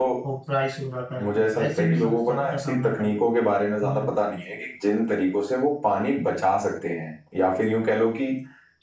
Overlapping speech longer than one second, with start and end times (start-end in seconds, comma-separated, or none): 1.2-3.2